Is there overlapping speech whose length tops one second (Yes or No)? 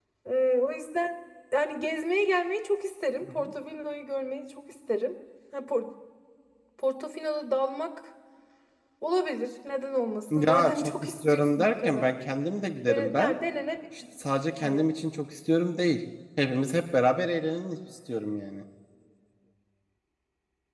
Yes